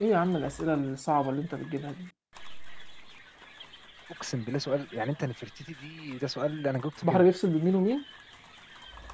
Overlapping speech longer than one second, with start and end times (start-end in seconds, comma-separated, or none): none